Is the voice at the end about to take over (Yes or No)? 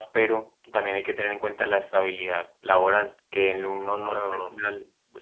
No